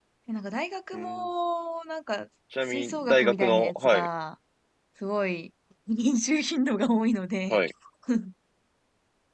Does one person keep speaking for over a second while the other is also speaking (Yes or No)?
Yes